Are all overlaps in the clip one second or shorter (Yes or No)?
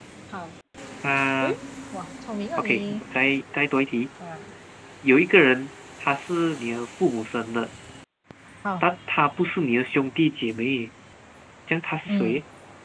Yes